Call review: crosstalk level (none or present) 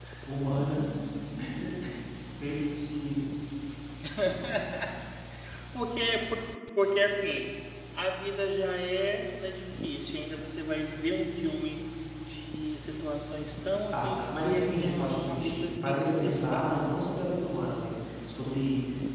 present